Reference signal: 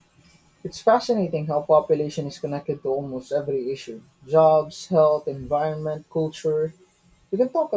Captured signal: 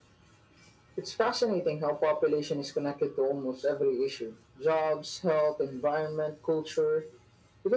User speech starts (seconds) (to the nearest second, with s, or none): none